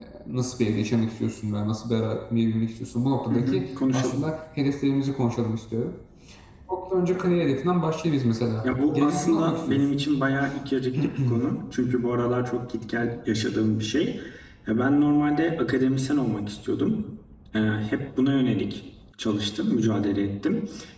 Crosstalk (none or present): present